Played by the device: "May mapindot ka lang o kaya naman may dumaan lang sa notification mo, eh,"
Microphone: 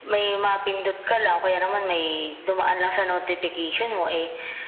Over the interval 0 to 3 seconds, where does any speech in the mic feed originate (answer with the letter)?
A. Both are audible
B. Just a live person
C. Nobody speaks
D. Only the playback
D